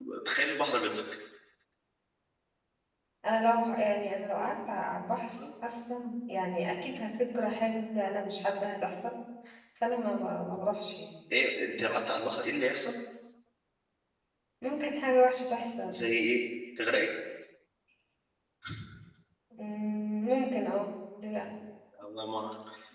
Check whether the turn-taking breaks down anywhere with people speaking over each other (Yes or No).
No